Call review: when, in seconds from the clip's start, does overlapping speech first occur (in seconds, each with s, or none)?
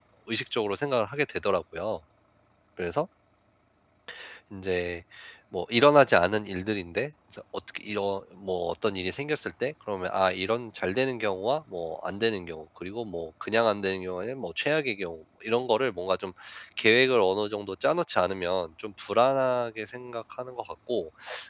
none